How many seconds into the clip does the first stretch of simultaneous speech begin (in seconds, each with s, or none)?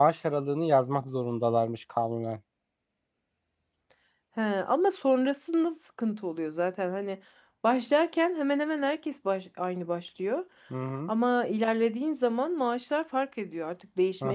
none